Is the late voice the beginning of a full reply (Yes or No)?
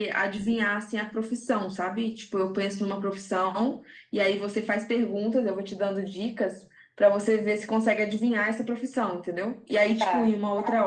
No